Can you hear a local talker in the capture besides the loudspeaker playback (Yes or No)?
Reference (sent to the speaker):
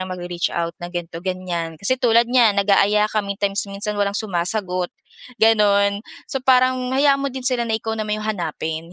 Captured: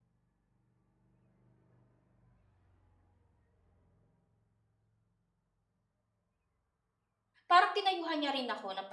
Yes